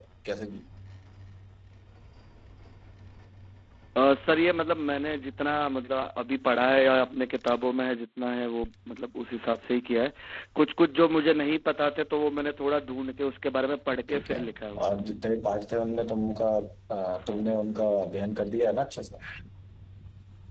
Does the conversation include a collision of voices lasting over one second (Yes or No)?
No